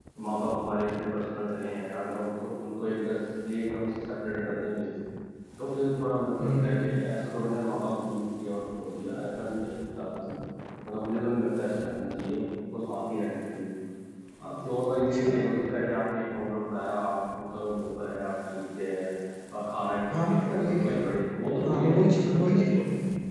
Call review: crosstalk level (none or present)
present